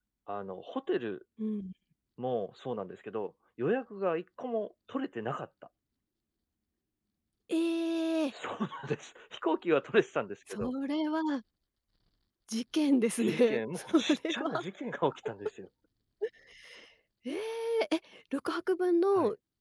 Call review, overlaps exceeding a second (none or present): present